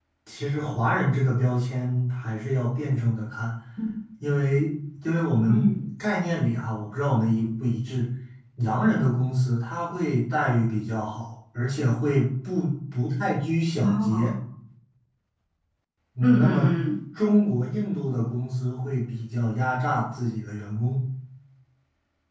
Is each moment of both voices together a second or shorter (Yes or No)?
Yes